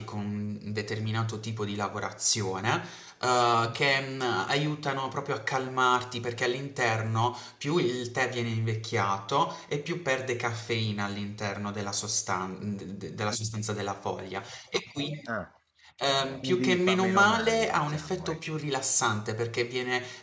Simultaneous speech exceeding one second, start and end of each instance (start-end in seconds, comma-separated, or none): 16.4-18.4